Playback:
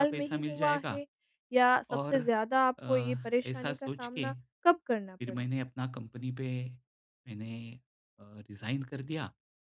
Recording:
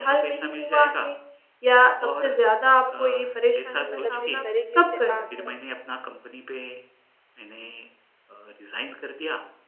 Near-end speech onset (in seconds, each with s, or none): 3.9 s